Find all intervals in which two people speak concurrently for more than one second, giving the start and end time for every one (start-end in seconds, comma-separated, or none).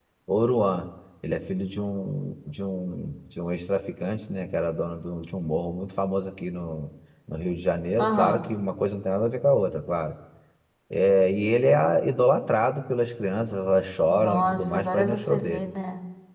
14.1-15.7